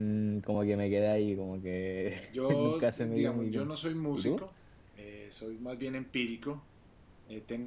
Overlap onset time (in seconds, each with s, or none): 2.5 s